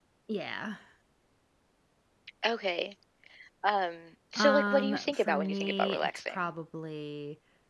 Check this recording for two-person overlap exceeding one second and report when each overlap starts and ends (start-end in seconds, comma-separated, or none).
4.3-6.4